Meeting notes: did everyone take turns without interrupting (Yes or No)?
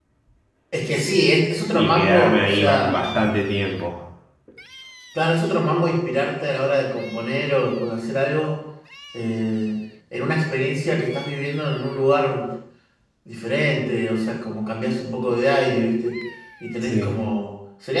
No